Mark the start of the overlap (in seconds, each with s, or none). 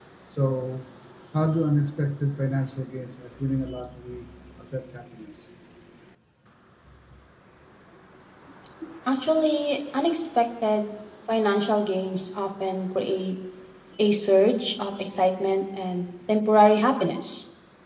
none